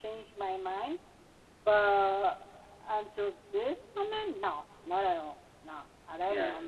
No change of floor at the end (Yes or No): No